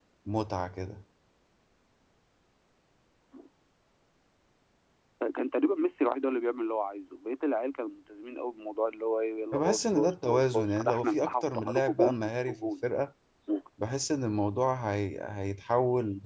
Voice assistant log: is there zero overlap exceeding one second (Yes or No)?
No